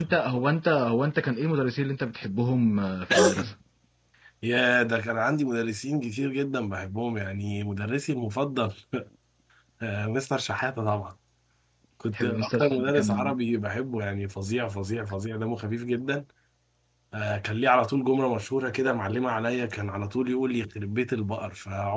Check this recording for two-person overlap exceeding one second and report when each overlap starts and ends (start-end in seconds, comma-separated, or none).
12.1-13.4